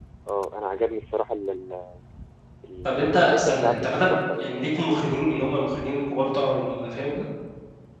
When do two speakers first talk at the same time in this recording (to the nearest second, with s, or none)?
3 s